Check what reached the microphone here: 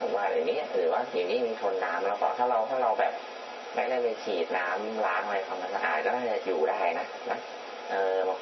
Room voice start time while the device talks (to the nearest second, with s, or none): none